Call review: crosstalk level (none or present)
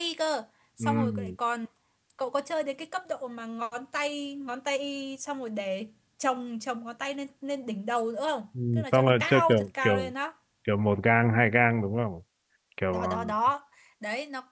present